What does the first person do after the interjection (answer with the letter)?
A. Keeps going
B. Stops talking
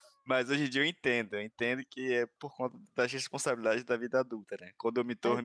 A